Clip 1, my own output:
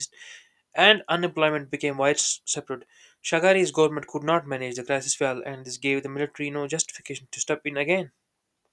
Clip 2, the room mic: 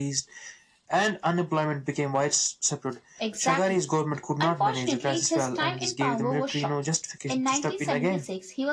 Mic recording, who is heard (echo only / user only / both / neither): both